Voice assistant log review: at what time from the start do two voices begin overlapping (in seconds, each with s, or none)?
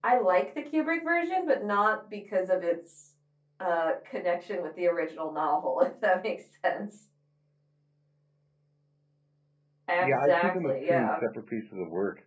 10.0 s